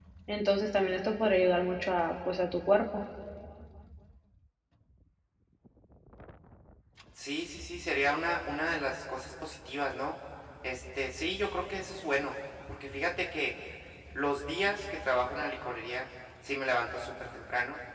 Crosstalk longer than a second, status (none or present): none